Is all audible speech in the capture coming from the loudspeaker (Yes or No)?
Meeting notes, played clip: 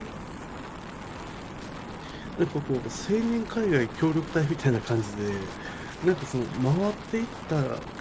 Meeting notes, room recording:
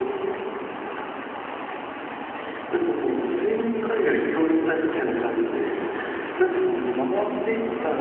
Yes